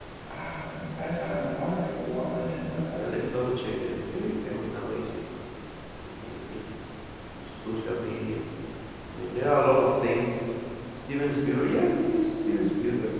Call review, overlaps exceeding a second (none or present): none